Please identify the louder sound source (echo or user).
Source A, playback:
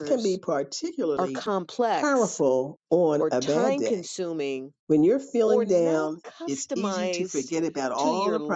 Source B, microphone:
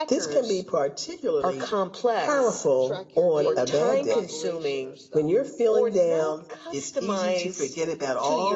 echo